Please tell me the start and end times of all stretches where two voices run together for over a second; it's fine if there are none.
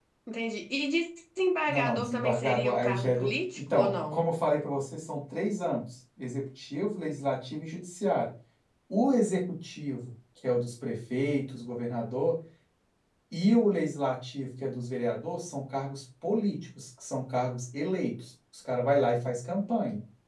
1.7-4.2

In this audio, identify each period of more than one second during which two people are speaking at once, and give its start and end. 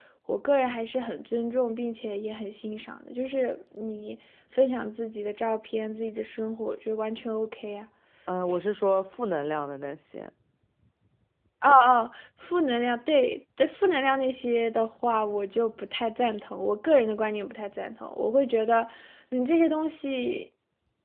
none

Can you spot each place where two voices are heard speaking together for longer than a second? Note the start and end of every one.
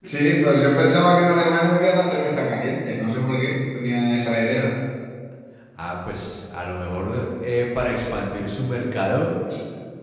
none

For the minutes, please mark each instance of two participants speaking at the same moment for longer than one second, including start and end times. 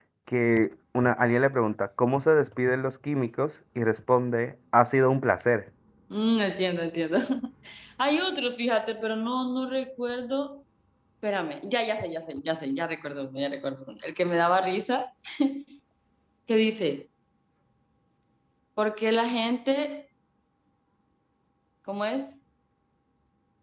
none

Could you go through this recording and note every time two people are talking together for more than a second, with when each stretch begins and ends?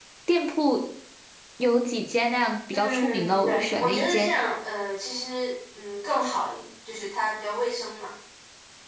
2.7-4.3

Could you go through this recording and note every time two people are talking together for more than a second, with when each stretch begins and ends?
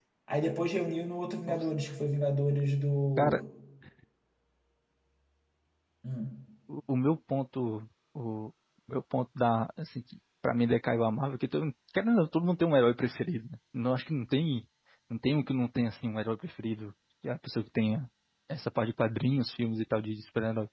none

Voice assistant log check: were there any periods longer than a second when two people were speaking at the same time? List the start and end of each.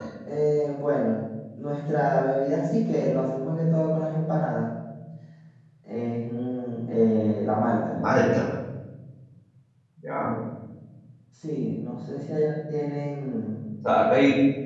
none

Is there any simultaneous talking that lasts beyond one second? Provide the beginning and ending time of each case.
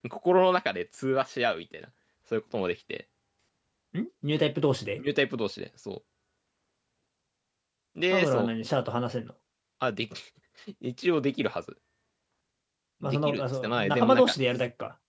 13.0-14.3

